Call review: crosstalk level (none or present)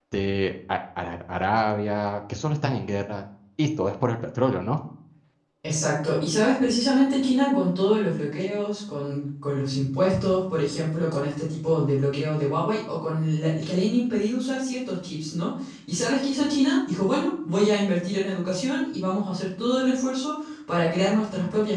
none